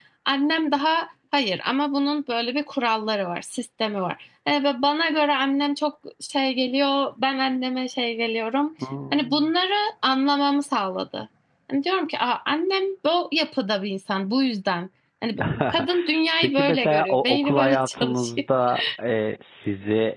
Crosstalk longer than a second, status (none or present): present